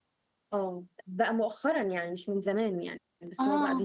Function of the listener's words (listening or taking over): listening